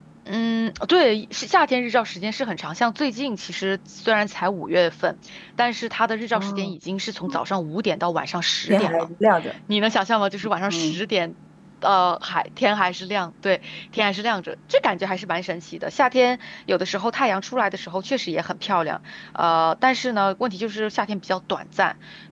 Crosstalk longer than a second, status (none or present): none